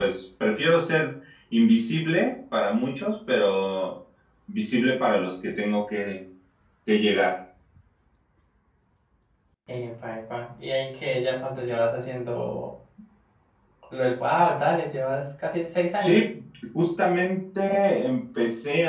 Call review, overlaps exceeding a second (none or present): none